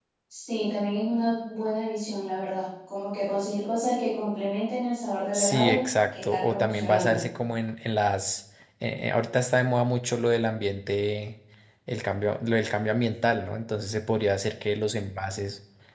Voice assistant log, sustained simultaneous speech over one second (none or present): present